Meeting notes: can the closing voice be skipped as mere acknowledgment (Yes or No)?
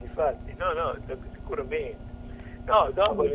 Yes